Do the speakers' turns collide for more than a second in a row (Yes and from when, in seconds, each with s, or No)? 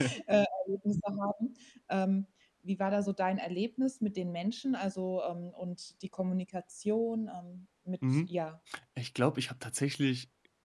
No